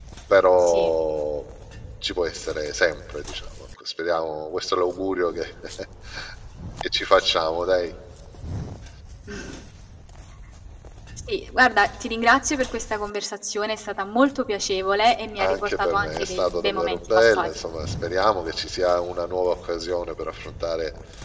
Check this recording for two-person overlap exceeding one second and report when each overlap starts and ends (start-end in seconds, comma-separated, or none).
15.4-17.5